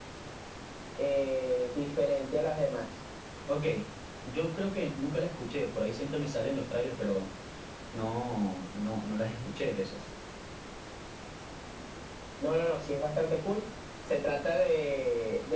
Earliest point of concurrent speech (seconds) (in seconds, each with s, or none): none